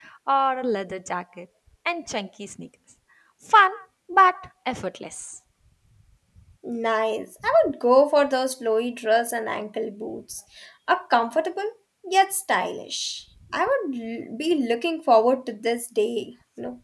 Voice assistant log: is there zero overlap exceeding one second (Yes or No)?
Yes